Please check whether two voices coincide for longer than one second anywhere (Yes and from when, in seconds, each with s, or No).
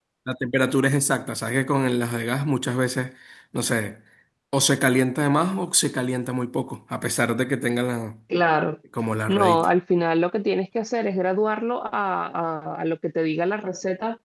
No